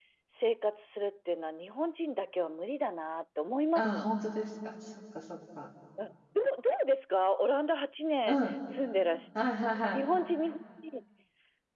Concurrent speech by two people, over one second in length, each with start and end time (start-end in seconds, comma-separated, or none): none